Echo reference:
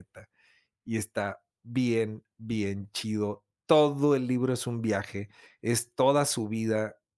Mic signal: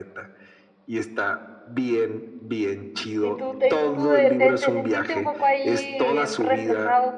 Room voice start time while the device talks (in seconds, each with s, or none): 3.2 s